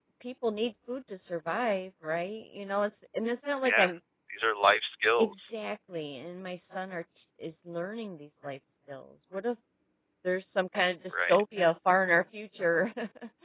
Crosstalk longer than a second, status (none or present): none